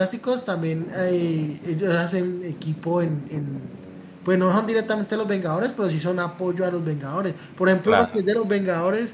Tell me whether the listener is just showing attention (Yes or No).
Yes